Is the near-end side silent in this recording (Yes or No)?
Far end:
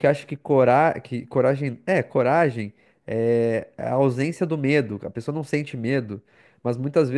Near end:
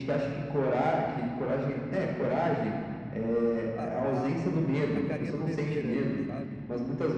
No